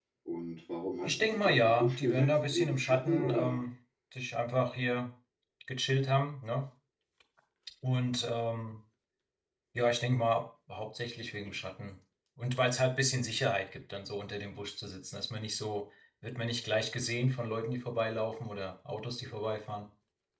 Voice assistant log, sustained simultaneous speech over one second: present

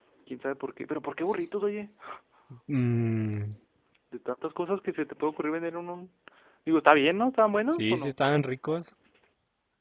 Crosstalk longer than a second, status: none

